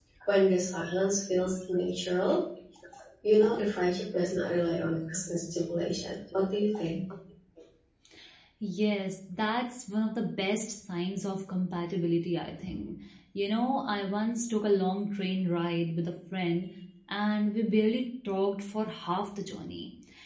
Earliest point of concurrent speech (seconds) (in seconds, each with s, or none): none